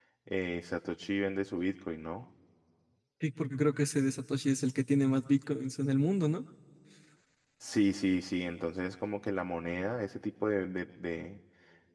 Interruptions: none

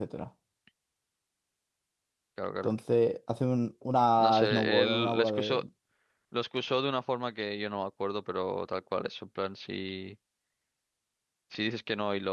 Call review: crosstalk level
present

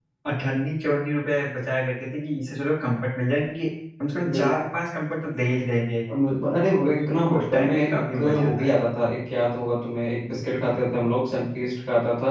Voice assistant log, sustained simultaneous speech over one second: present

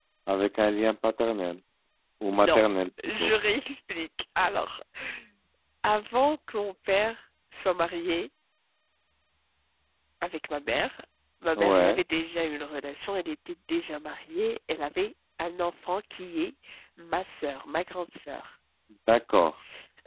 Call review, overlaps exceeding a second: none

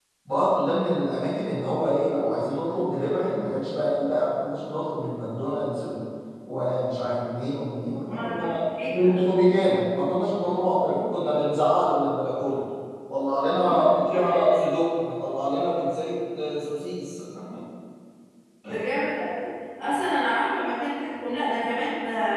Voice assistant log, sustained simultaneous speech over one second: none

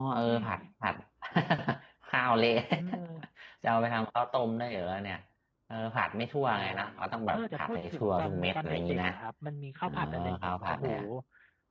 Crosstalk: present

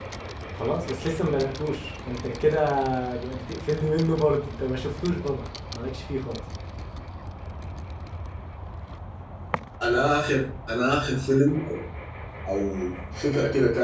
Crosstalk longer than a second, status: none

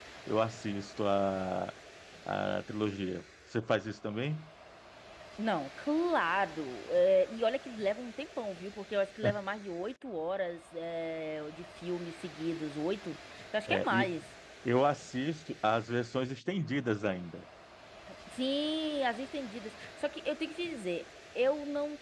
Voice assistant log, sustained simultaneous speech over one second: none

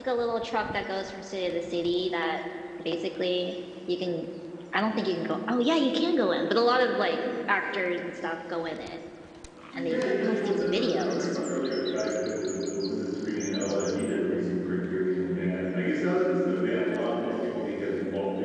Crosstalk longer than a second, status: present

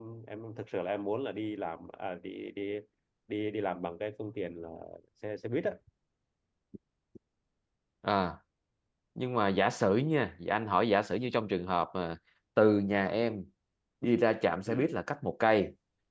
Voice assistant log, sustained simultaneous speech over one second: none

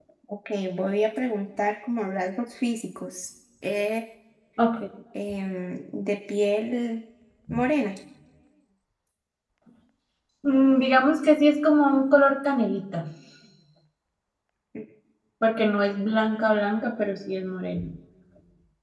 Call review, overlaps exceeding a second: none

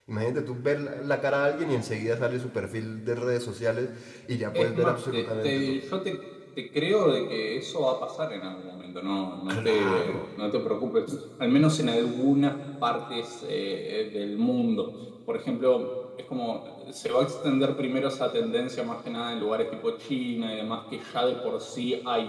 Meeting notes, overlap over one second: present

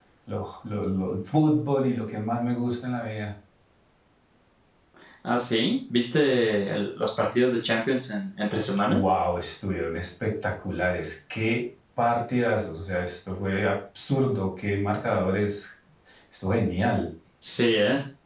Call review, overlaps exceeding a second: none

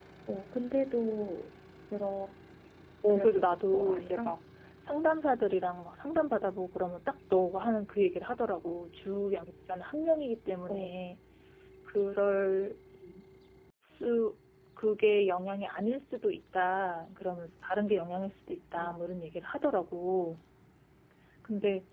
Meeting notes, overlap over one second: present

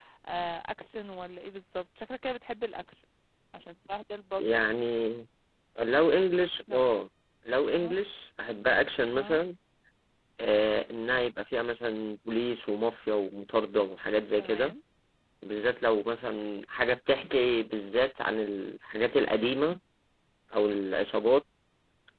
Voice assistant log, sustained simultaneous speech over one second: none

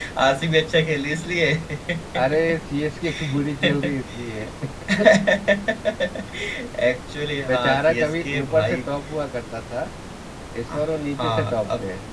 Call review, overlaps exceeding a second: present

